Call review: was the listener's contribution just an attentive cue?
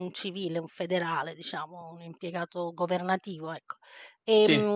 Yes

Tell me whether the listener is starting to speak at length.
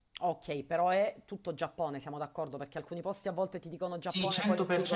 Yes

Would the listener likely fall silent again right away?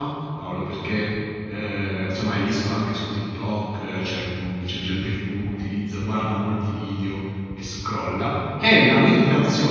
Yes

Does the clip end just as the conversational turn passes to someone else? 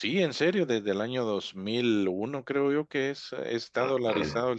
Yes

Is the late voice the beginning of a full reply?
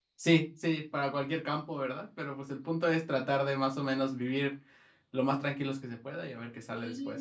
Yes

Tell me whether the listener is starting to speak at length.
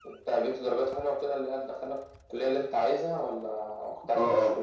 Yes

